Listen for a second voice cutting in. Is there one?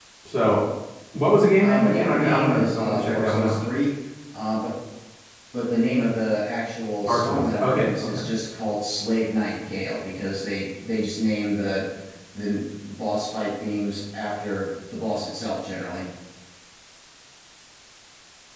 Yes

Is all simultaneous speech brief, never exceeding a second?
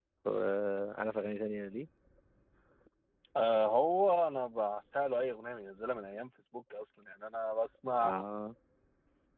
Yes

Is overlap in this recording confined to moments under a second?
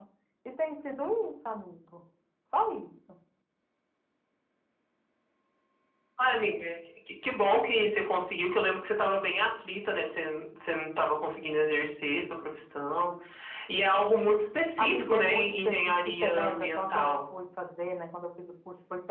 No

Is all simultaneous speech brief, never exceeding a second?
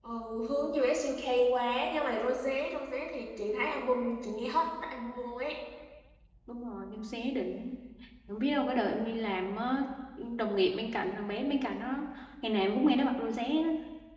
Yes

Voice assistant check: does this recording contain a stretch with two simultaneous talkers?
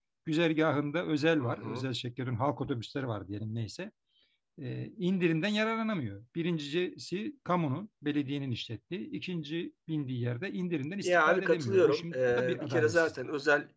Yes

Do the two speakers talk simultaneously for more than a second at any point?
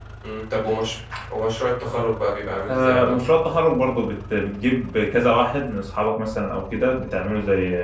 No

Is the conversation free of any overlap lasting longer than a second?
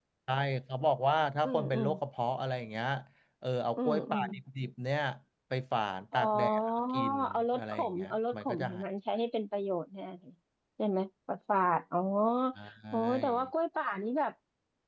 No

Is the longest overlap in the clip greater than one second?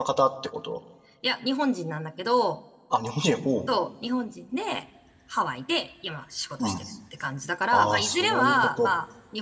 Yes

